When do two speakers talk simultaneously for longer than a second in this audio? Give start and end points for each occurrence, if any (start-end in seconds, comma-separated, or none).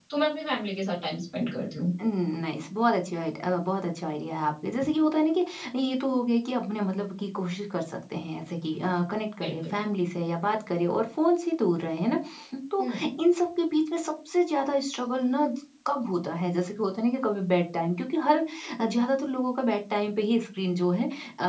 none